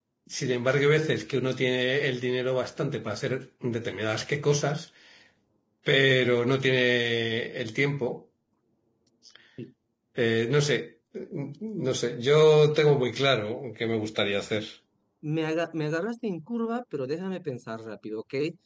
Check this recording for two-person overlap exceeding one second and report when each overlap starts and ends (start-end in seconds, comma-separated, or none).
none